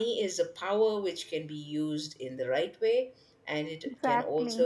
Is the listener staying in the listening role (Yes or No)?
Yes